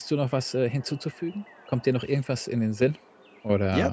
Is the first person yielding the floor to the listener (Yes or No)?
Yes